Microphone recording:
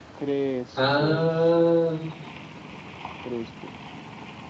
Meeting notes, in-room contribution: present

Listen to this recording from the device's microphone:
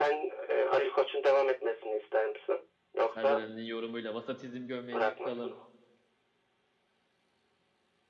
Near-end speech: present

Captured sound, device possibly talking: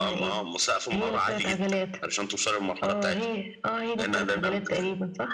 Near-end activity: none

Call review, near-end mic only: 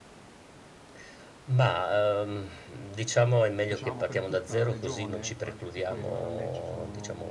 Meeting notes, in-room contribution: present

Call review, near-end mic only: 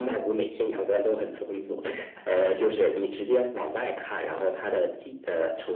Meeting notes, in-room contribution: none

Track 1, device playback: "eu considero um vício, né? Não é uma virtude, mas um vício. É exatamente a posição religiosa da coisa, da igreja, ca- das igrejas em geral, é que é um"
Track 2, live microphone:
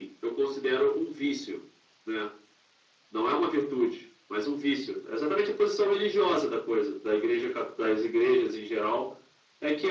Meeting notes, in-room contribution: none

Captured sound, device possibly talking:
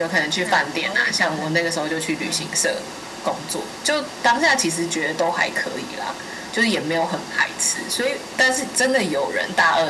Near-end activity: present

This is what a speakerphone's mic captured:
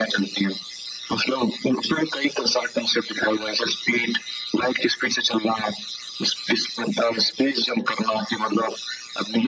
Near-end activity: none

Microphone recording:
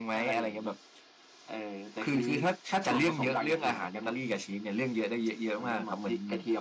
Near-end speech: present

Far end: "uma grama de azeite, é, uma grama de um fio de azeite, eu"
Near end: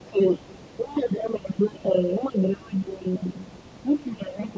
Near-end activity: none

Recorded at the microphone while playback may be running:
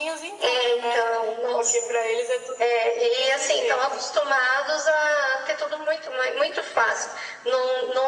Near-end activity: none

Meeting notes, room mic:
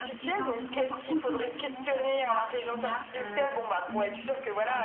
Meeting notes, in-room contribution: present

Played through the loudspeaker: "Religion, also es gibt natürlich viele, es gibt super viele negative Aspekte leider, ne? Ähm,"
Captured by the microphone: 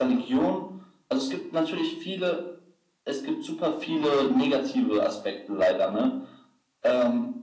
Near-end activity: none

